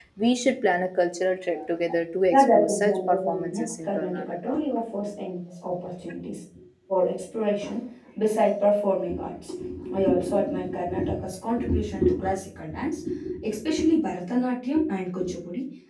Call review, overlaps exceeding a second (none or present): present